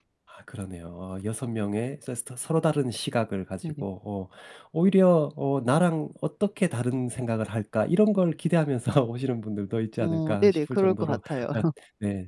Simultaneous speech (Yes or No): Yes